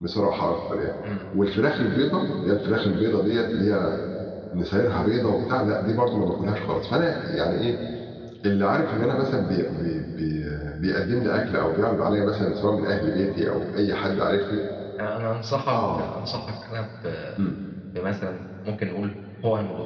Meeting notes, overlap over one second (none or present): none